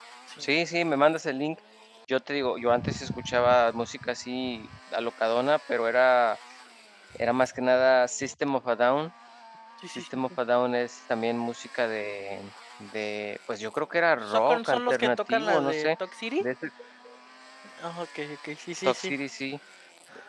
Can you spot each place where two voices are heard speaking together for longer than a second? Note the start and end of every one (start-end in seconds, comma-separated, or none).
14.2-15.9